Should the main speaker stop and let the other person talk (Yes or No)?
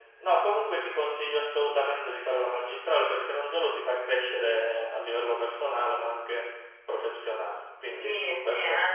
Yes